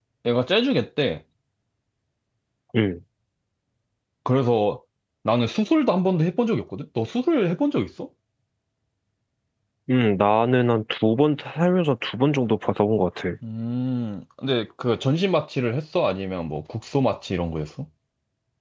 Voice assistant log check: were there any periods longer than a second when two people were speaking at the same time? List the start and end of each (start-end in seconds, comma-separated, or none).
none